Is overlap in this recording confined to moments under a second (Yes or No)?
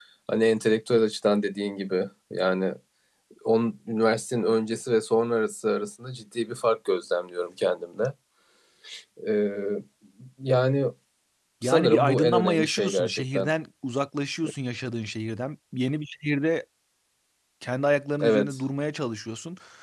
No